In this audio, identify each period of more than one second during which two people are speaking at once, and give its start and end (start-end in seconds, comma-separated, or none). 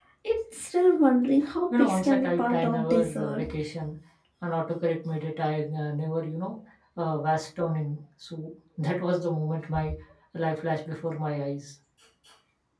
1.7-3.4